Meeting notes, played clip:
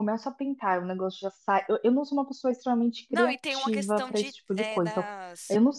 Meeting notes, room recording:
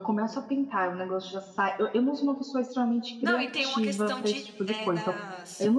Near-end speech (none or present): none